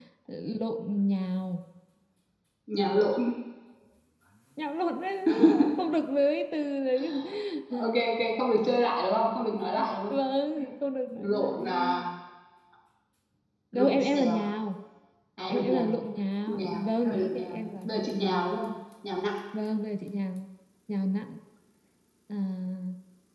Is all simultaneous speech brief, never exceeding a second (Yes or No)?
No